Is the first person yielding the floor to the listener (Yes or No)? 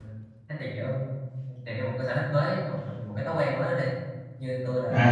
Yes